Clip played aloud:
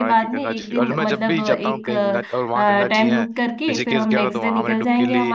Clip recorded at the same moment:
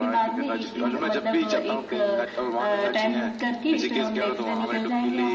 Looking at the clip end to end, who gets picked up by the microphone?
echo only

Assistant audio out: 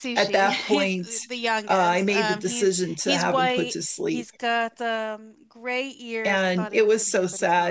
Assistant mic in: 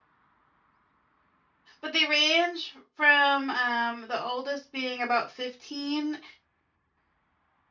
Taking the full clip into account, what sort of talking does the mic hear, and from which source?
user only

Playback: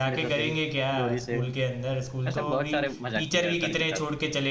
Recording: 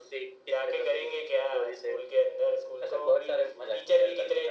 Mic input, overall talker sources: echo only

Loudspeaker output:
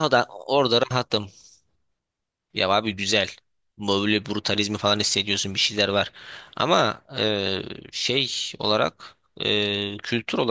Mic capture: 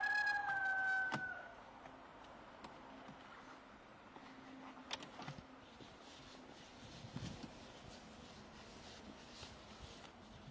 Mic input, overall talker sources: neither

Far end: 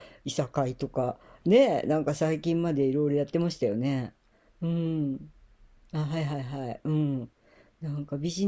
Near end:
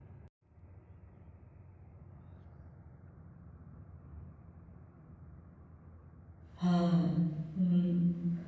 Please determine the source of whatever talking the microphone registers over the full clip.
user only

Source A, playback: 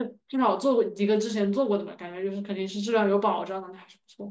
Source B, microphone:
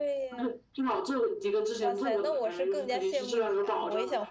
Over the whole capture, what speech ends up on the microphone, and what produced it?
both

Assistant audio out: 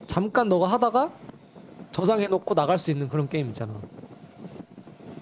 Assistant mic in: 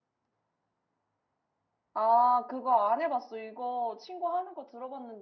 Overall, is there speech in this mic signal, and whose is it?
user only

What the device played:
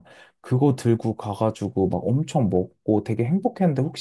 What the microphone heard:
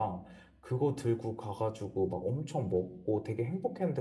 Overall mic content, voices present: echo only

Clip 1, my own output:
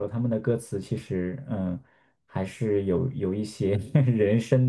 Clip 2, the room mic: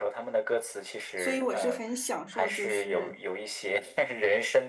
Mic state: both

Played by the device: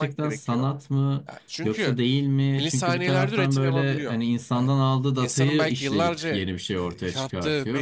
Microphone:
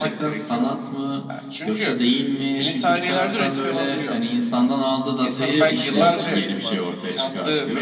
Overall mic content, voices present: both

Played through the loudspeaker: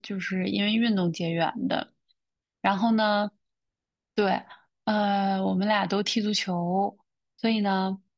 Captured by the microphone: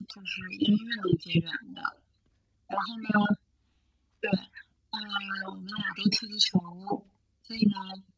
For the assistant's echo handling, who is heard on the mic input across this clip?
echo only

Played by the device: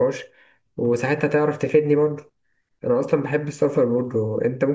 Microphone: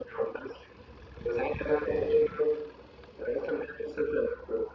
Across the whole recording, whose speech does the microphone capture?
both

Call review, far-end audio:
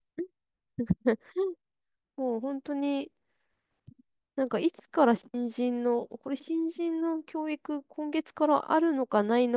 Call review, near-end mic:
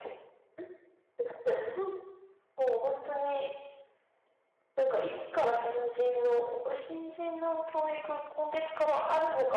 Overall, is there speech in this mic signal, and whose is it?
echo only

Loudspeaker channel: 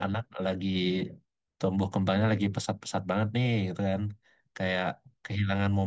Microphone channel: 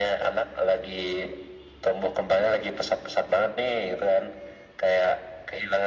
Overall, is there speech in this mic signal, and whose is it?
echo only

